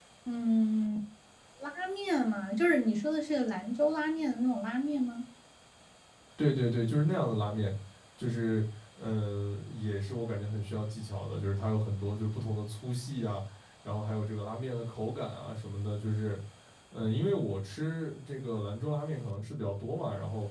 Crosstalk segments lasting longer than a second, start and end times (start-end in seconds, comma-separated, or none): none